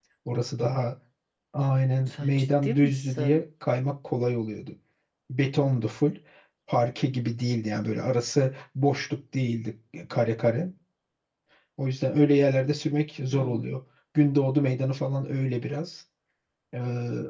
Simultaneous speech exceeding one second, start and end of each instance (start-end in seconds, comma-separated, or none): 2.1-3.4